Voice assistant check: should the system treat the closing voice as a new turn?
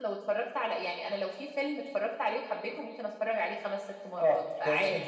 Yes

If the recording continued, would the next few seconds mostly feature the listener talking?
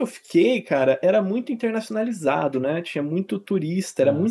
No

